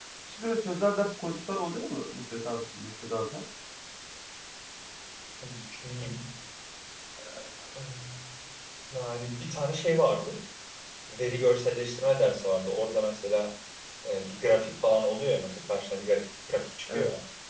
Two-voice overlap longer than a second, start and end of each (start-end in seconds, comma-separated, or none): none